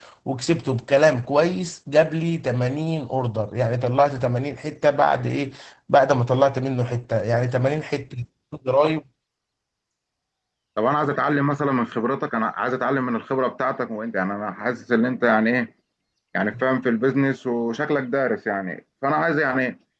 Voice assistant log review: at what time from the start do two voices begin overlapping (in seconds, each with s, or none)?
none